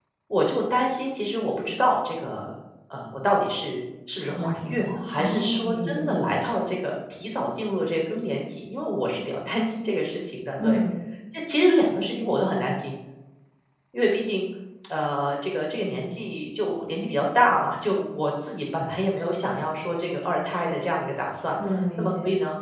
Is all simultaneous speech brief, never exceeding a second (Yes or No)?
No